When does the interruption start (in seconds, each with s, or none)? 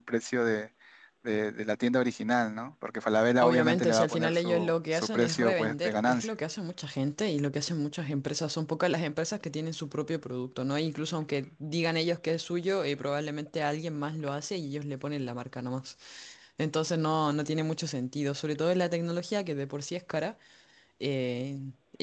3.4 s